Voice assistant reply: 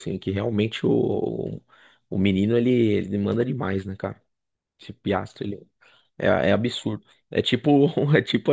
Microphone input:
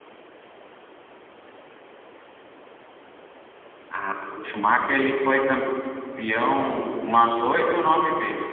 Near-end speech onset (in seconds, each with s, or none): 3.9 s